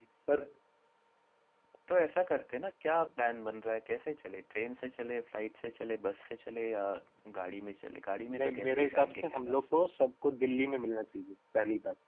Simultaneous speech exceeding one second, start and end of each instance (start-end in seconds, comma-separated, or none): 8.4-9.6